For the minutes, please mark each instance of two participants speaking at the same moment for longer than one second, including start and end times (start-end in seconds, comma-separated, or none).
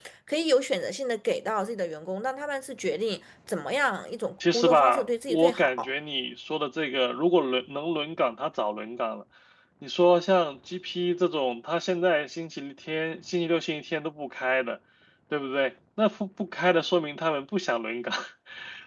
4.5-5.9